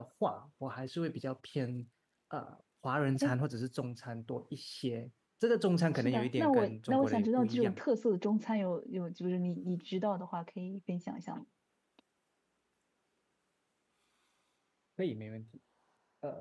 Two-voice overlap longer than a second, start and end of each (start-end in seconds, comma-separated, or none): 6.0-7.8